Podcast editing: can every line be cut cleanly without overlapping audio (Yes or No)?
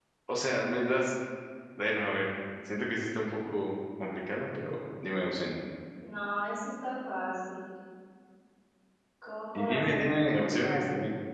No